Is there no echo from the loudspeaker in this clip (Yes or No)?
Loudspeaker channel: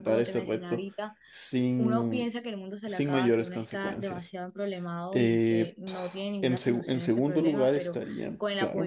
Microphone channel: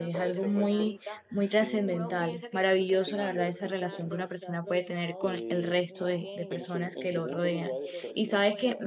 No